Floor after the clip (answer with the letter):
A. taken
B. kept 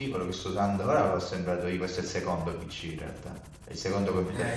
A